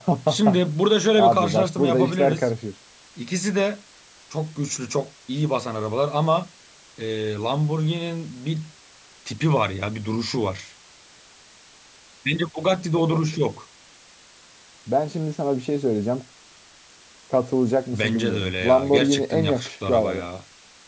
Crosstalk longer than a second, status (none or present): present